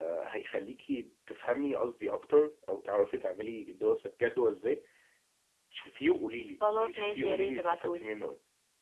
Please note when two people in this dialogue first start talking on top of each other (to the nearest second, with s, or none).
7 s